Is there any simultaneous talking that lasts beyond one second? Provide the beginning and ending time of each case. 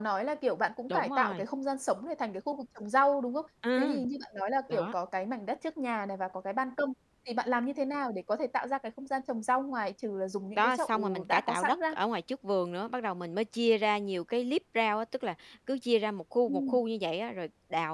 10.6-11.9

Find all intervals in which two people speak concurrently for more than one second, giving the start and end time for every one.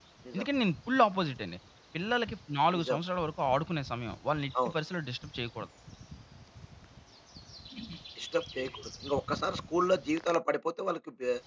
none

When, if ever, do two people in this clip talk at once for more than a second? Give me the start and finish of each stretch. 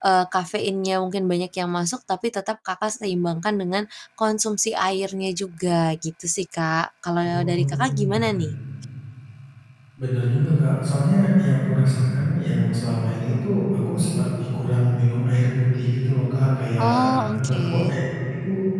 16.8-18.0

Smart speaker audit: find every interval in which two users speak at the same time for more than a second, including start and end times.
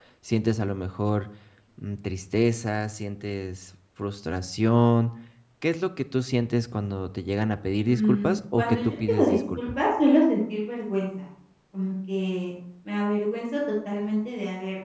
7.9-9.6

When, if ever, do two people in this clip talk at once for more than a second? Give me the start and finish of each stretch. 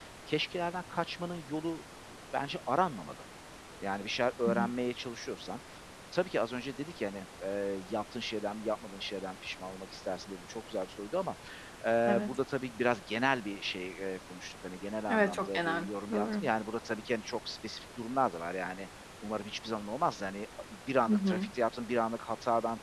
15.1-16.4

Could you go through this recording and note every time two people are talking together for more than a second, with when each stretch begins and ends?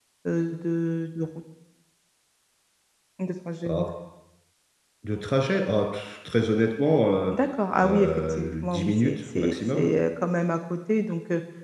7.8-9.9

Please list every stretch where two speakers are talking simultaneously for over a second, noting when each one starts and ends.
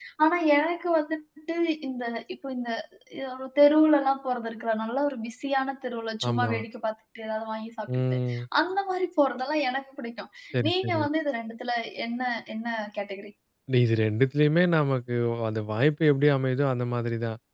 none

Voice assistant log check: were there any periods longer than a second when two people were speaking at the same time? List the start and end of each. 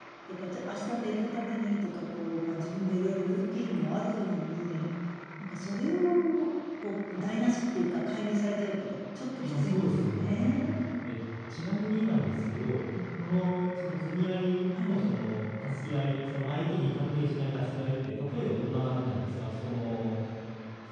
9.4-10.6

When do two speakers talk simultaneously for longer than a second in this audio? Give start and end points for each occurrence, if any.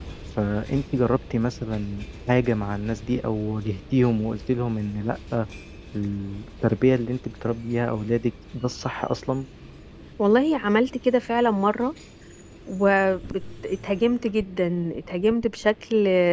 none

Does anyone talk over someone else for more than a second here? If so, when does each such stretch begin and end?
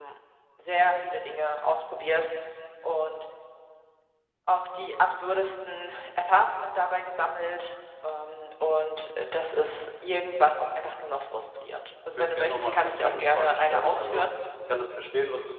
12.2-14.2

